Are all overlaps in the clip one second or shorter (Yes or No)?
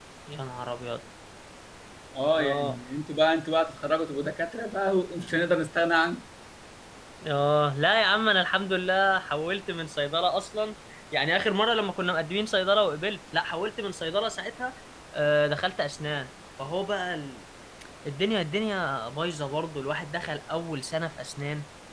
Yes